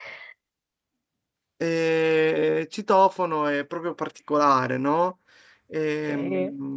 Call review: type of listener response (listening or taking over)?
listening